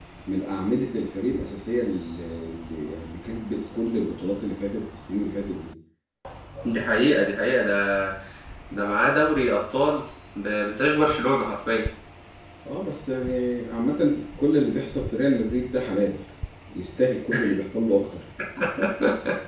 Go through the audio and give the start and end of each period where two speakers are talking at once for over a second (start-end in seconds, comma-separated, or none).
none